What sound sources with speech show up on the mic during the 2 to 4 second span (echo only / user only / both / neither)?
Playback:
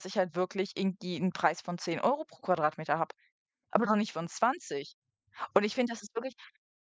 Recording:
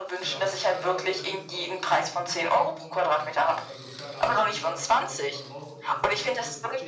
both